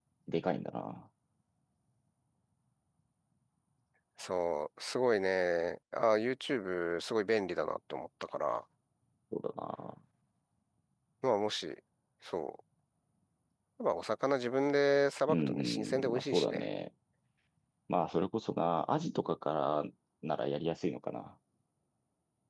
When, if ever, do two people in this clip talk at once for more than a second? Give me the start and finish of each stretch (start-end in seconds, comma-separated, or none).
15.3-16.7